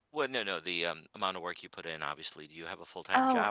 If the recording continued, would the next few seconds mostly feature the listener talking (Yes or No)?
Yes